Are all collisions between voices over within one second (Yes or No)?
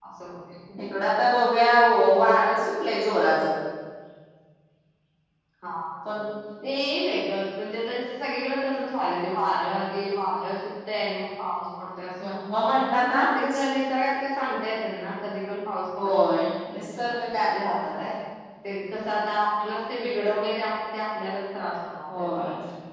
Yes